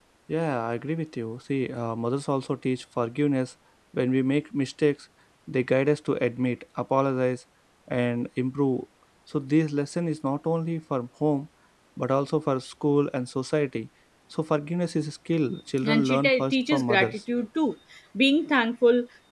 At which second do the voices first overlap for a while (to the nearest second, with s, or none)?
16 s